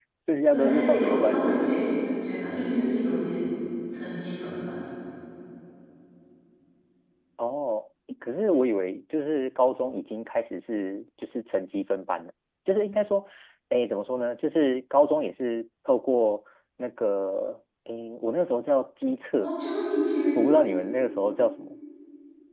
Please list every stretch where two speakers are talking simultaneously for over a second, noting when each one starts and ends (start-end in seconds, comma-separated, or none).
0.5-1.8